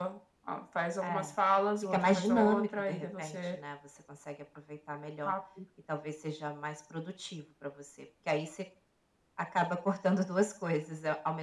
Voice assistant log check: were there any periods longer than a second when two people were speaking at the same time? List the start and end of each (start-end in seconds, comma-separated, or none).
1.9-3.6